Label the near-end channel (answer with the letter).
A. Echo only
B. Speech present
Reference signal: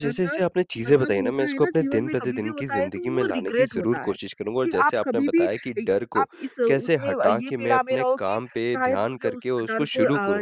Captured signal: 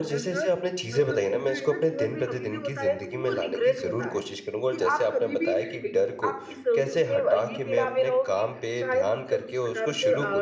A